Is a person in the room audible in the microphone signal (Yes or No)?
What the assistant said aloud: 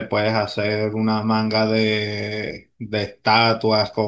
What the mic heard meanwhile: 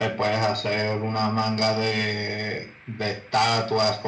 No